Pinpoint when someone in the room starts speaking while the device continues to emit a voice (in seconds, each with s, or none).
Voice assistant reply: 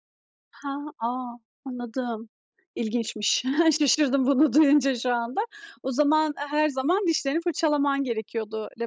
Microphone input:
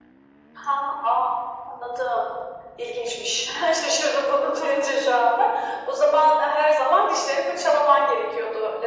none